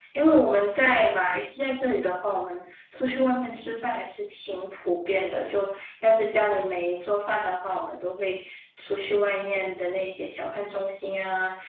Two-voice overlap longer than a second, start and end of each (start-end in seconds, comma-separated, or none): none